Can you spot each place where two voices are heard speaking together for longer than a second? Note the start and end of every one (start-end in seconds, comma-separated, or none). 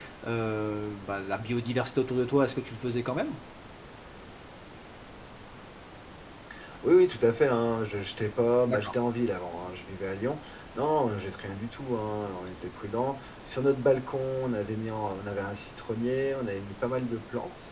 none